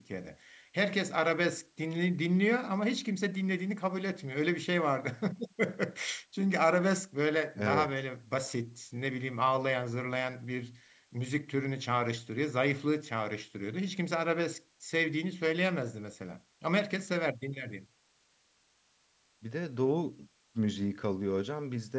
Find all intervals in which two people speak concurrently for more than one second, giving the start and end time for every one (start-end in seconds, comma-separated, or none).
none